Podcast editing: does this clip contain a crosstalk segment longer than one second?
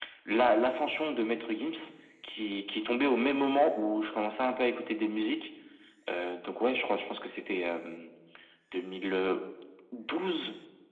No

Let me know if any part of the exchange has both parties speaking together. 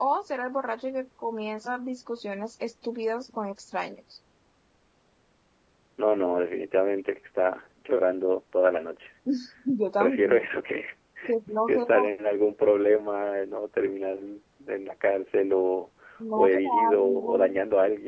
Yes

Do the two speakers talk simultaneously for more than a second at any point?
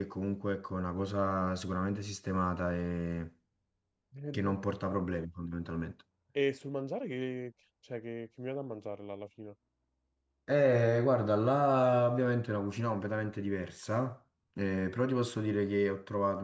No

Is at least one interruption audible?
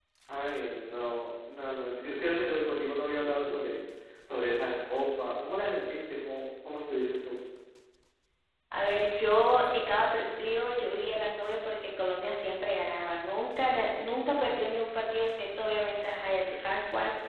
No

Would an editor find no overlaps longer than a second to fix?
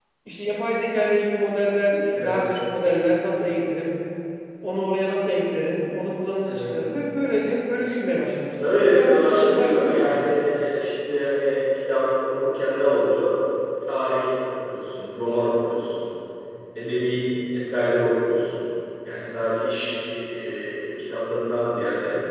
No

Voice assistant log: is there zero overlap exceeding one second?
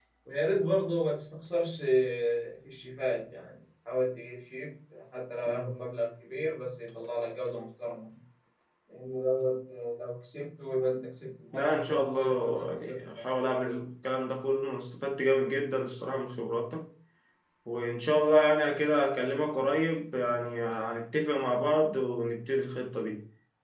No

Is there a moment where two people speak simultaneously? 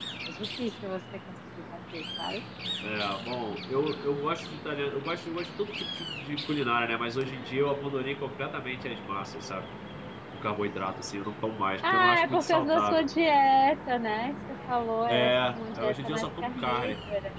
Yes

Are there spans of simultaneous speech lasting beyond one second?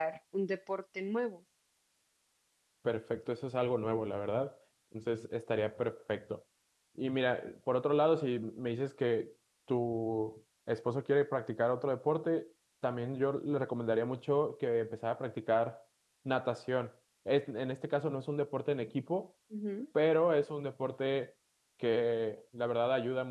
No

